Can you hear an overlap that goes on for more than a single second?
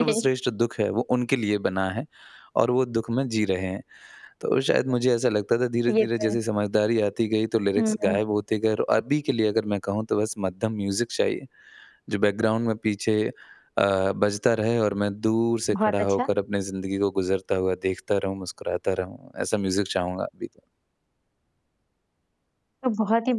No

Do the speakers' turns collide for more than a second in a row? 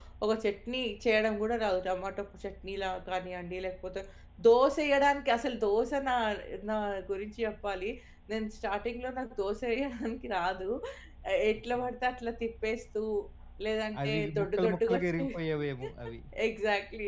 Yes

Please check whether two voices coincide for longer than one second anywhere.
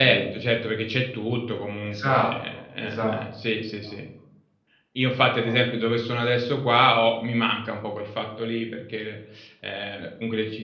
Yes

